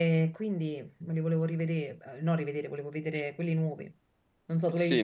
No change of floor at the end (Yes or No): No